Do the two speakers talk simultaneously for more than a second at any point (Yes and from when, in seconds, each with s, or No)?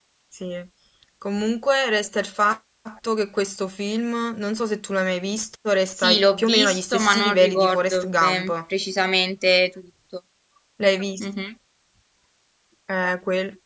Yes, from 6.0 s